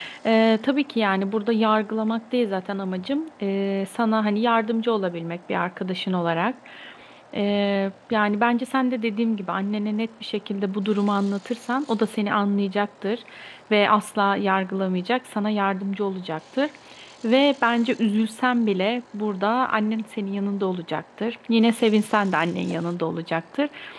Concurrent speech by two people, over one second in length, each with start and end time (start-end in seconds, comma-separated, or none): none